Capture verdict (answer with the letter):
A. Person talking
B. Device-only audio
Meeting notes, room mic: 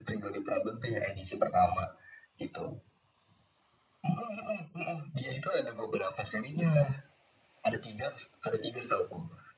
B